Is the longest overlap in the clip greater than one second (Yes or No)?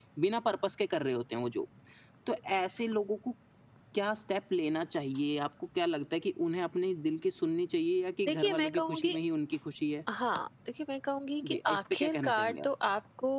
Yes